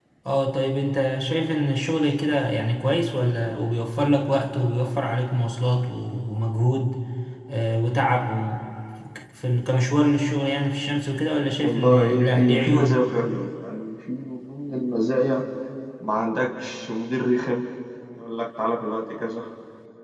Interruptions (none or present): present